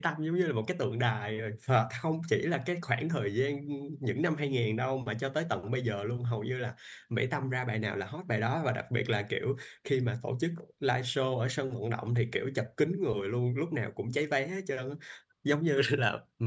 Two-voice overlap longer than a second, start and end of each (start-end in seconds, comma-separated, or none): none